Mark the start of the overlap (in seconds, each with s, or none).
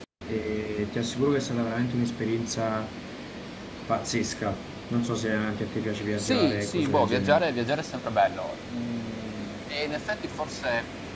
6.2 s